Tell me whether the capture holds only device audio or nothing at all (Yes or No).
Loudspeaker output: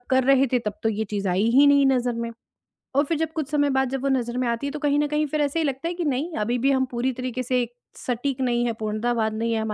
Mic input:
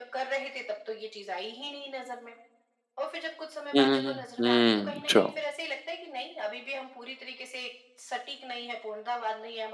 No